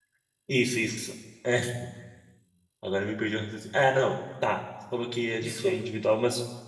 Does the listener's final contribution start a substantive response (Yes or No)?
No